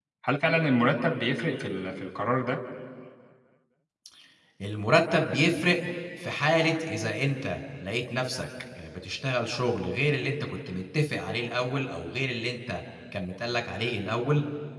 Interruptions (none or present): none